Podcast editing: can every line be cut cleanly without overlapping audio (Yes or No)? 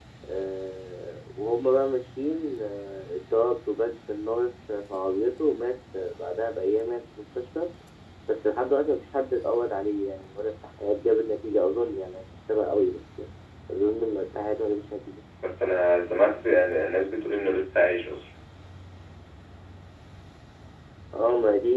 Yes